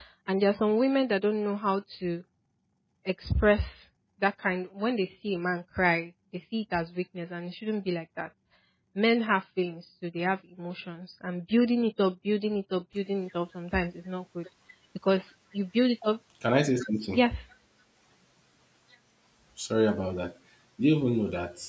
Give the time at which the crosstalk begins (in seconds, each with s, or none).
none